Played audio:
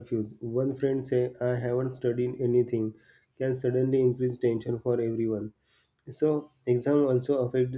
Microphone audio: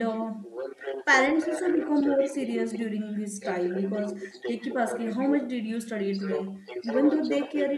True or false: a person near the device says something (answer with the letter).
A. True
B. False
A